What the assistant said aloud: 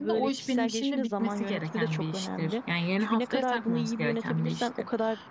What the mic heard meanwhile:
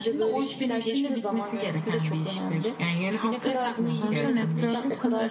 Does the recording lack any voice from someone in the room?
No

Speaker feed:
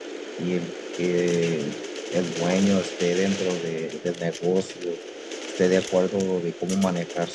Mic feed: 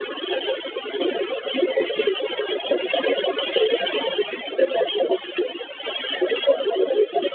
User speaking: No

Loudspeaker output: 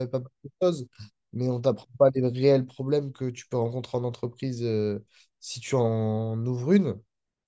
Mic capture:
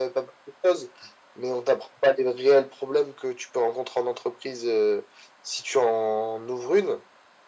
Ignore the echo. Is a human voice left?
No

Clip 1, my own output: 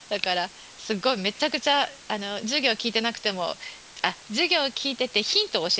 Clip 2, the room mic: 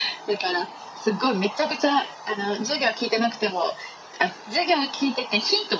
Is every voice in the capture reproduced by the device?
Yes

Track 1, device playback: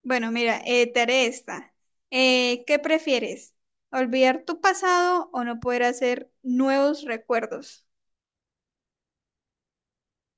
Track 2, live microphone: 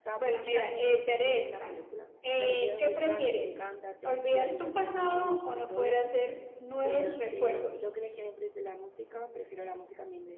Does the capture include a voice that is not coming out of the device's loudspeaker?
Yes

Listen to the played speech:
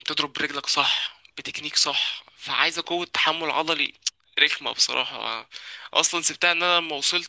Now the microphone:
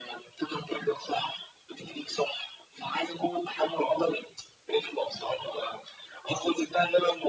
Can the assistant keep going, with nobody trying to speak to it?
Yes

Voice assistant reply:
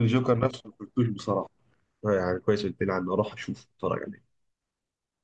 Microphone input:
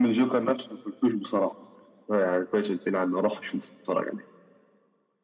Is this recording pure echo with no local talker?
Yes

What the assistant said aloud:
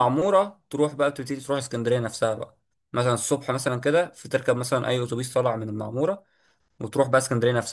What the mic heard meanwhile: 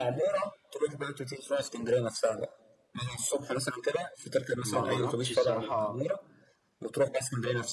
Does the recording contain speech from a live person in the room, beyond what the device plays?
Yes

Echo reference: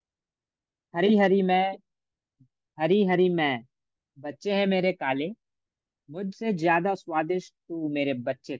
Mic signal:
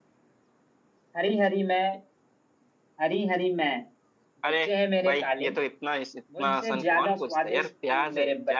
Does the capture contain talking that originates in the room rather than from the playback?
Yes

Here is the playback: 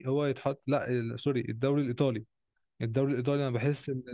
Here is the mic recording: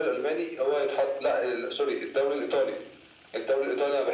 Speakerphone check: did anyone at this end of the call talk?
No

